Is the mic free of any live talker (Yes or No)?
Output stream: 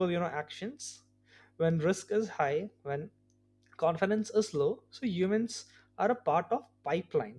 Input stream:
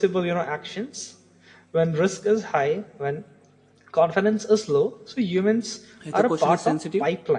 No